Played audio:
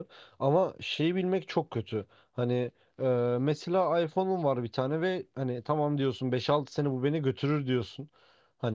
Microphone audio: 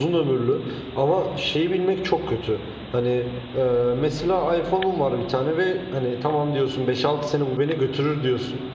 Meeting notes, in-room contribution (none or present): none